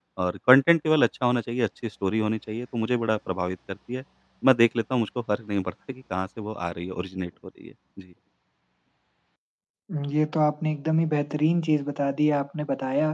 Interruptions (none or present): none